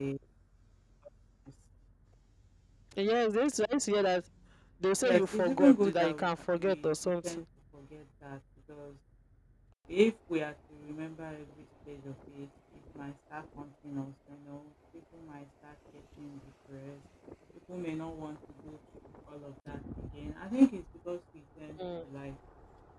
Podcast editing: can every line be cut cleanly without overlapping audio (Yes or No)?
No